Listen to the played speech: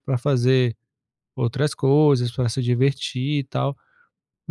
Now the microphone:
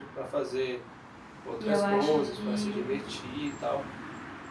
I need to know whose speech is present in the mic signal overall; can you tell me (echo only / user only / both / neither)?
both